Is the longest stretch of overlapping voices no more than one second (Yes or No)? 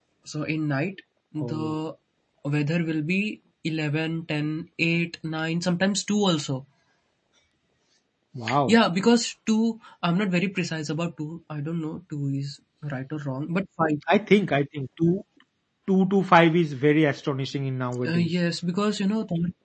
Yes